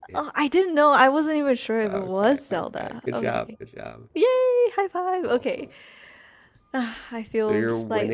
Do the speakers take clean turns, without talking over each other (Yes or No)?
No